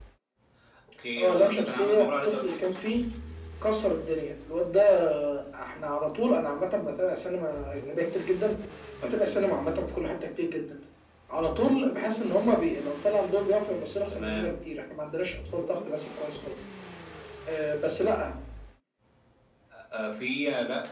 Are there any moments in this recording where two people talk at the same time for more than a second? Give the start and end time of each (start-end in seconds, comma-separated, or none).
1.2-2.4